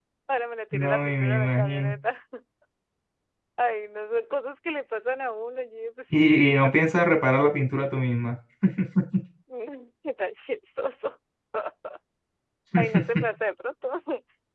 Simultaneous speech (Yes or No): Yes